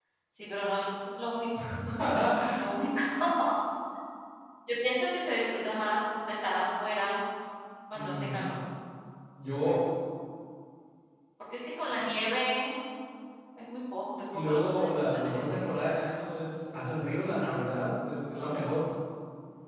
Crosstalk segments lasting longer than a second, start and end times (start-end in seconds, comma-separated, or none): 14.3-15.8